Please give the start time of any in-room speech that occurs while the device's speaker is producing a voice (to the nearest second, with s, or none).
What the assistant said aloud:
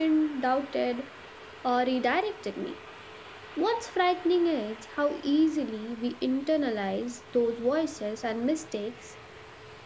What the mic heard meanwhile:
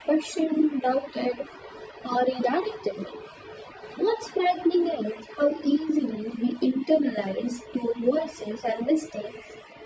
none